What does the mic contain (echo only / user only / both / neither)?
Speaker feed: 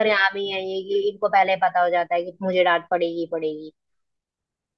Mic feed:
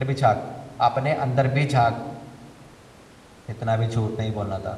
user only